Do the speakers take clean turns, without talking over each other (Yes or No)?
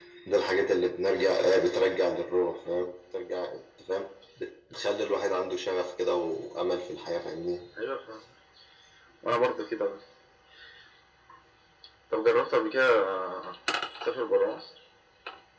Yes